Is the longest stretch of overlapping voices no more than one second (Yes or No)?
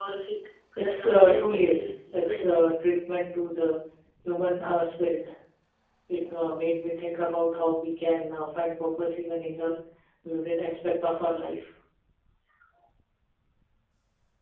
No